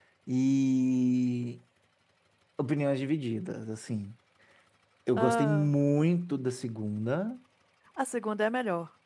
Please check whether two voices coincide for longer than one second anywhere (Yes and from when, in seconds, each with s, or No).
No